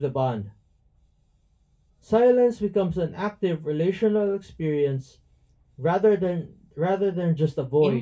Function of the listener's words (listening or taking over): taking over